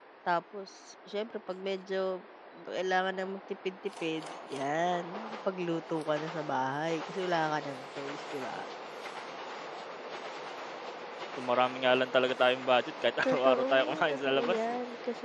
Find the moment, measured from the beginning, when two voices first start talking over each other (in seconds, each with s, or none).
13.2 s